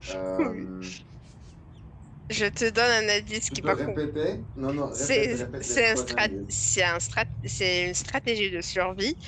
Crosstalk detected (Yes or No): Yes